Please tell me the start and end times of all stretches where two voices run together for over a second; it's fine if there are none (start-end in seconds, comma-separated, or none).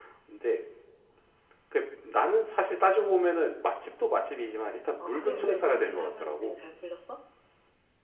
5.0-6.6